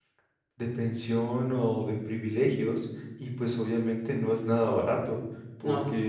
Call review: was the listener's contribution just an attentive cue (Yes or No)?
Yes